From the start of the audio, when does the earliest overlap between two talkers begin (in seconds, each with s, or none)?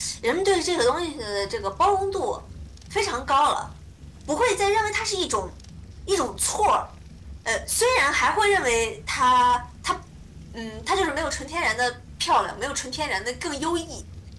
none